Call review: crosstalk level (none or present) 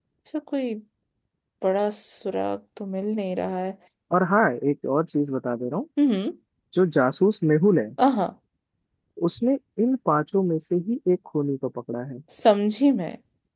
none